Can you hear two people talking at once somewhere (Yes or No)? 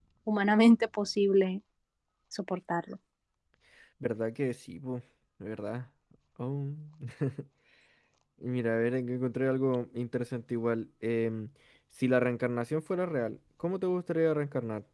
No